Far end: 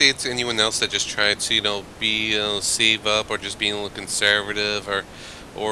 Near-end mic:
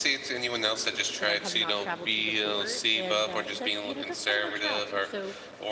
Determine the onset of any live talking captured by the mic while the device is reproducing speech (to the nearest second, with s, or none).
1 s